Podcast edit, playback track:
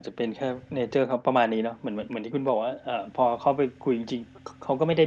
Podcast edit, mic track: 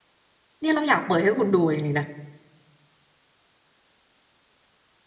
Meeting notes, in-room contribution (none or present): present